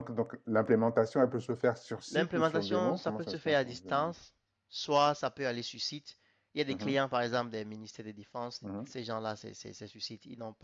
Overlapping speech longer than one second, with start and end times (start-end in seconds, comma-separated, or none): 2.1-4.1